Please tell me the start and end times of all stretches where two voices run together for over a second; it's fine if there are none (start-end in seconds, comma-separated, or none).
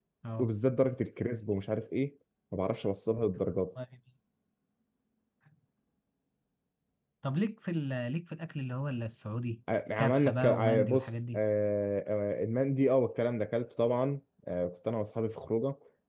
10.0-11.4